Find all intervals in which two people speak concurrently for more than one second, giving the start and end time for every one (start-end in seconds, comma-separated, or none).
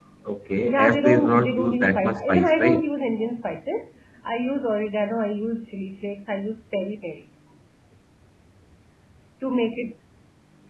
0.6-2.9